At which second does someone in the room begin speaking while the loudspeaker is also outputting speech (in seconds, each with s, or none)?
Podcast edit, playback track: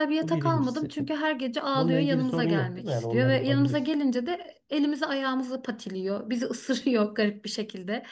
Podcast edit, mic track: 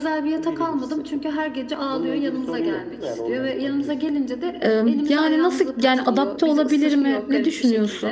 4.6 s